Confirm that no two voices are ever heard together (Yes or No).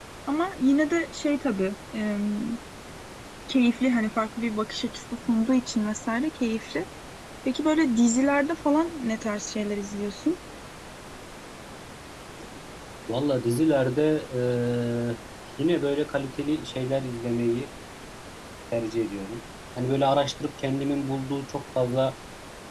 Yes